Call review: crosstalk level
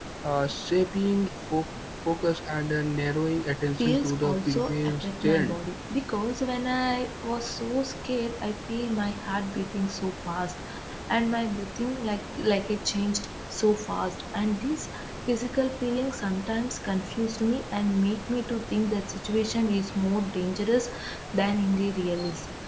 present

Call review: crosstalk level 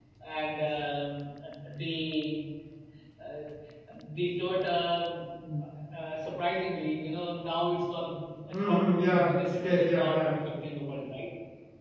present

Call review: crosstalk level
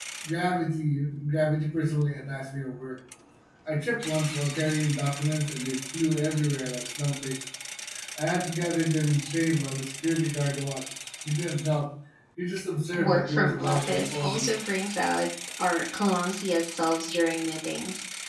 present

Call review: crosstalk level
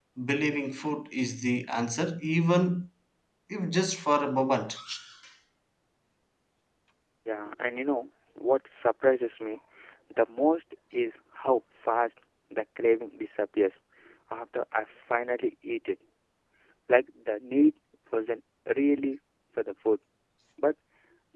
none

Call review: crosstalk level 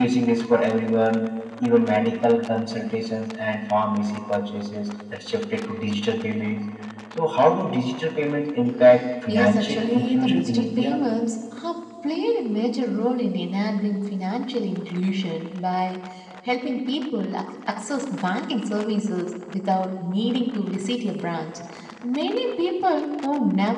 present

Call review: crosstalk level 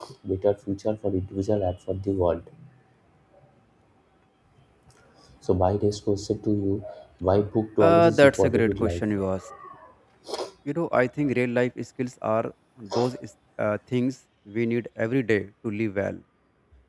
present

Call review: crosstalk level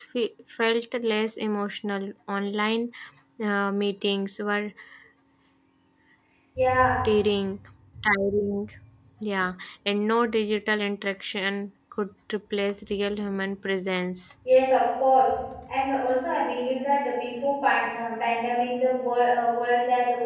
none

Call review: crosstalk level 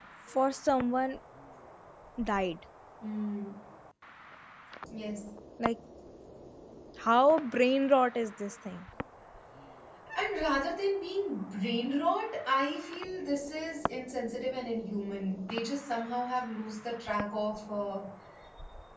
none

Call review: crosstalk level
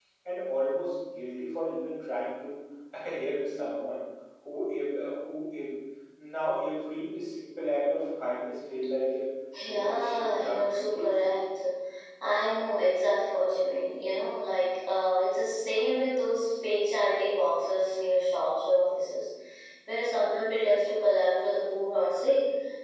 present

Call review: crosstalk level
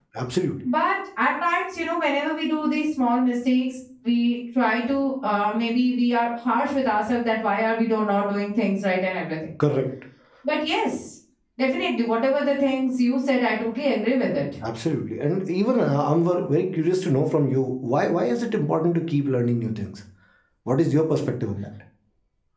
none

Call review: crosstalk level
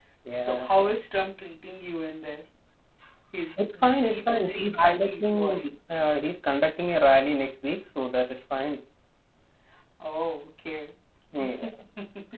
present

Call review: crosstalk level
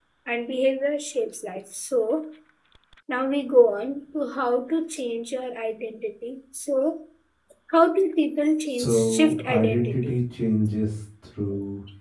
present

